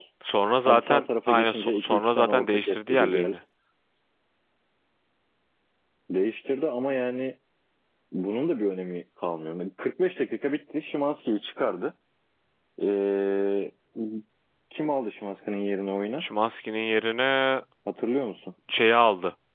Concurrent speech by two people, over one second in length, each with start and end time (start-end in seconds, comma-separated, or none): 0.7-3.4